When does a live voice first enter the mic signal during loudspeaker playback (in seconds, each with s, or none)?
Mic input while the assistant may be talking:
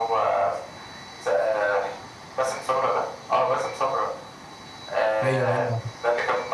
5.2 s